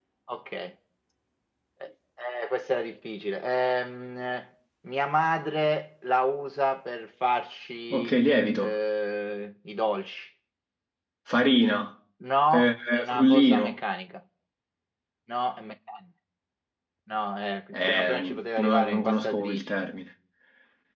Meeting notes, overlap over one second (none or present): present